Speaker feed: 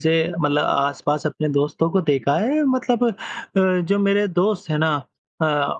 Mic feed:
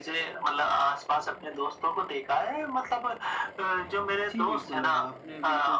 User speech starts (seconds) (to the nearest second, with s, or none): 4 s